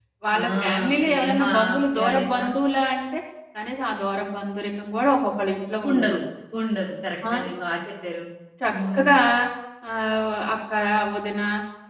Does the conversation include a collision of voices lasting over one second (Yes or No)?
Yes